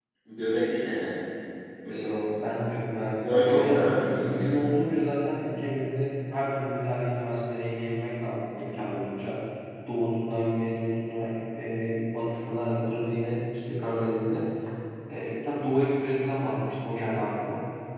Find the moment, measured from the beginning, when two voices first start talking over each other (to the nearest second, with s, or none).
3 s